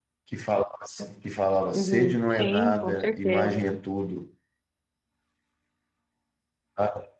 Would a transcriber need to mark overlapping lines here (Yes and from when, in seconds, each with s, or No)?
Yes, from 1.7 s